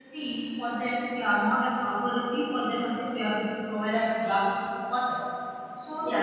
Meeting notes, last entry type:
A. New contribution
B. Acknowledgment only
B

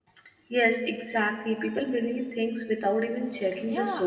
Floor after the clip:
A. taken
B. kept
A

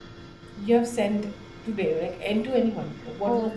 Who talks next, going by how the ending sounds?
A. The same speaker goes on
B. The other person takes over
B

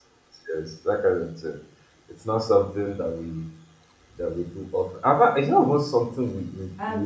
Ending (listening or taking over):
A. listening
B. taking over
B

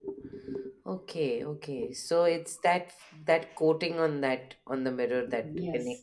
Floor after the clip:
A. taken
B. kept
A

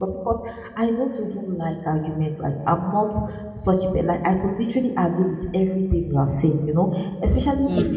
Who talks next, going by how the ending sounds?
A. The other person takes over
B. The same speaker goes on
B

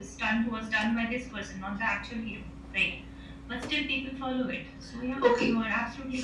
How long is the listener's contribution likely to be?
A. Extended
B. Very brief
A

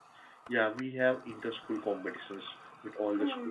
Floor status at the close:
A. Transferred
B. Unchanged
A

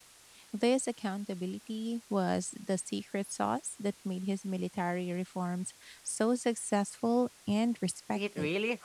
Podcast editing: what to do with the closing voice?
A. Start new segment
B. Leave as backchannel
A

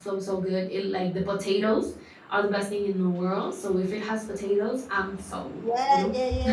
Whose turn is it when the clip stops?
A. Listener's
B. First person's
A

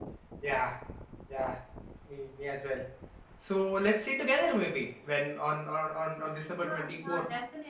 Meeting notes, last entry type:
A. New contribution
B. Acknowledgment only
A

